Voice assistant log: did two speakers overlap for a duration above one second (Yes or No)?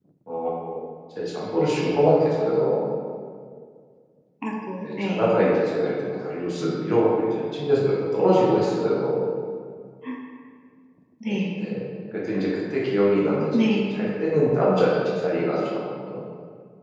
No